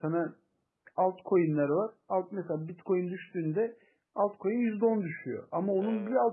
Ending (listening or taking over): listening